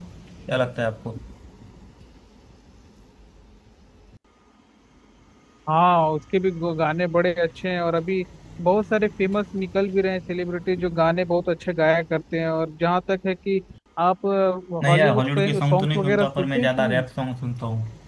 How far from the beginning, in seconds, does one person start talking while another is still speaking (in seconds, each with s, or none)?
14.9 s